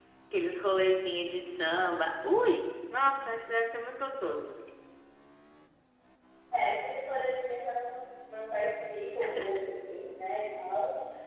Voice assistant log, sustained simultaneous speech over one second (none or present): none